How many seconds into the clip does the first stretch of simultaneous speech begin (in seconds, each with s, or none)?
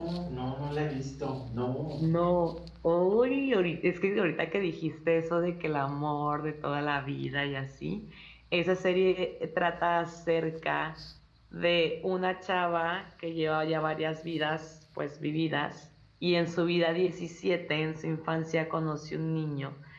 none